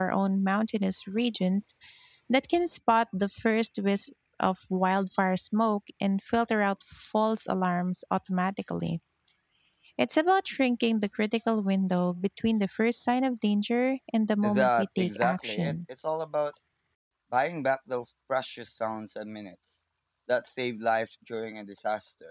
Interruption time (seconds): 14.4 s

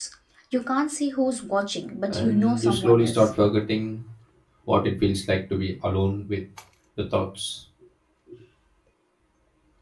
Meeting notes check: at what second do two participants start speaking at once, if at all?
2.1 s

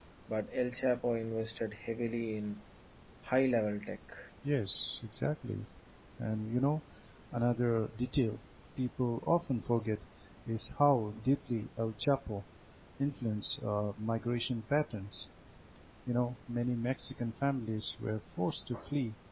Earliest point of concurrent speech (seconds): none

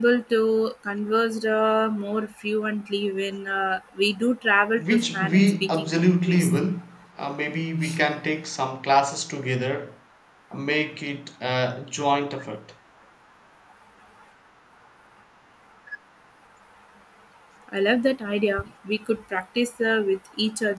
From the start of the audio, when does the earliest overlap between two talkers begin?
4.8 s

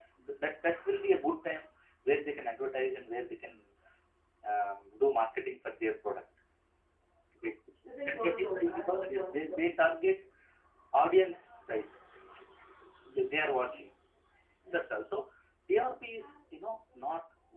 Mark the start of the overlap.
8.1 s

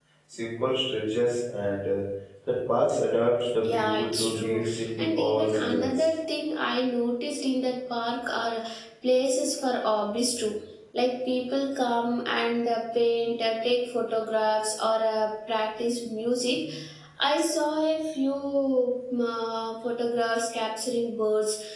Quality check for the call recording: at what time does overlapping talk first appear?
3.6 s

